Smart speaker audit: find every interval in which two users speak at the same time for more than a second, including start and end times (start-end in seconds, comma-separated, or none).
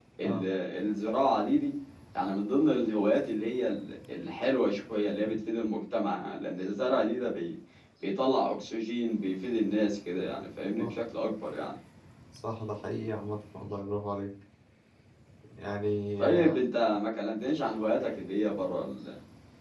none